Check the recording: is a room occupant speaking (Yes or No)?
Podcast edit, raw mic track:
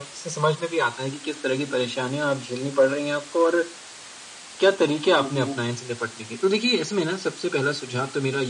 Yes